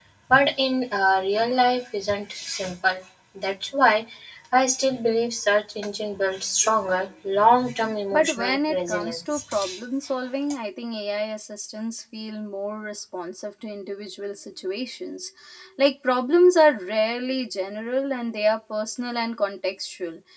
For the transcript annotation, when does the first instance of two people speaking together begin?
8.1 s

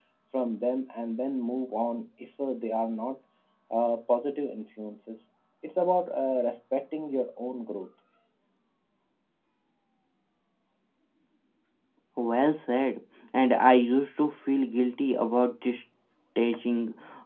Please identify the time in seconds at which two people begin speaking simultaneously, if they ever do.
none

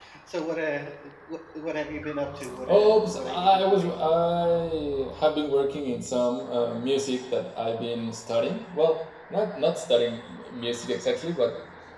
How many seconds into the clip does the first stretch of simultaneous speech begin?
2.7 s

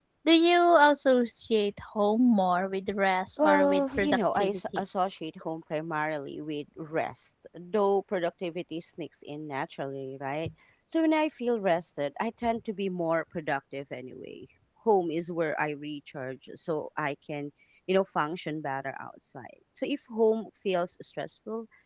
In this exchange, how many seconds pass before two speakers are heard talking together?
3.4 s

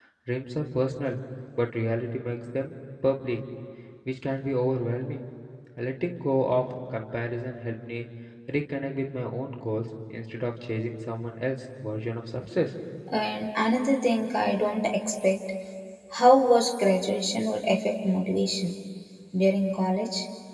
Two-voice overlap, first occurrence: none

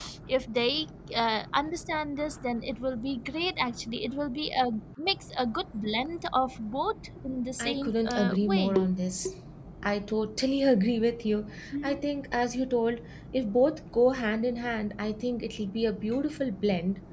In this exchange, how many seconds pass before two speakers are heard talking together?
7.6 s

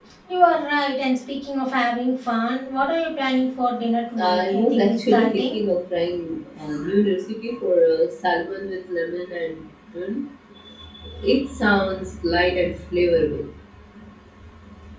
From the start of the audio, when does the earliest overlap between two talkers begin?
4.2 s

